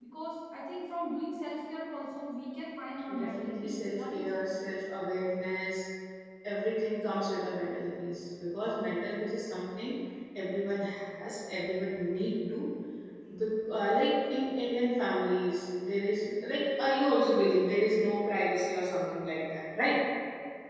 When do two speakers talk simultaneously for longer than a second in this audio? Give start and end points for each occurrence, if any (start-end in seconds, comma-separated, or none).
3.1-4.5